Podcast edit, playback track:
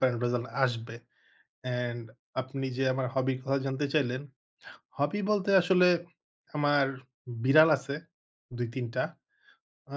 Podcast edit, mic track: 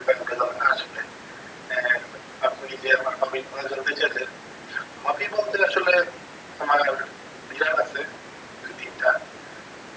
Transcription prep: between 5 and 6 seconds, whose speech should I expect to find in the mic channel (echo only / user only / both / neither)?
echo only